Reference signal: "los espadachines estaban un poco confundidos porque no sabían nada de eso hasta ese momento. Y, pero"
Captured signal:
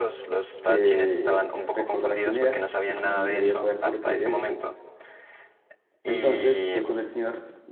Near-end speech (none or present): present